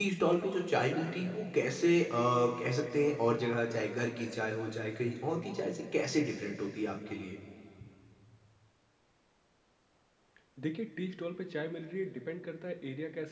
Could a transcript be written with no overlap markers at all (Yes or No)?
Yes